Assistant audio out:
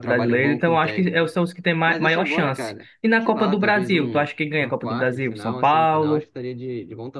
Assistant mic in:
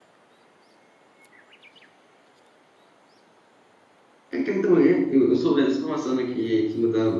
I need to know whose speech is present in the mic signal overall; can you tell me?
user only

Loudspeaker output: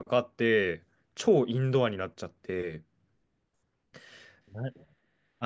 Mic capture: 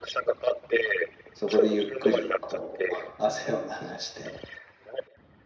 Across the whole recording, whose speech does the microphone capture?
both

